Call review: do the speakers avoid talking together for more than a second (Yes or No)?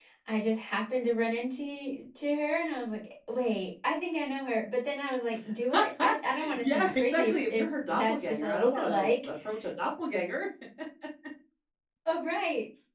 No